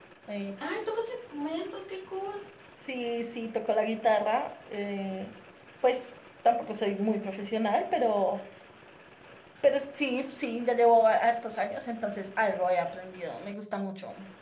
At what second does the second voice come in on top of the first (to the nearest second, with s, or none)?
none